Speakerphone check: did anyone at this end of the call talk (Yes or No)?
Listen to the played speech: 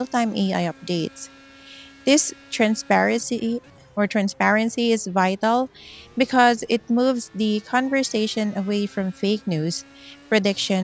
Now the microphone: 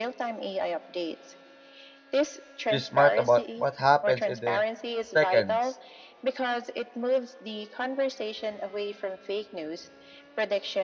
Yes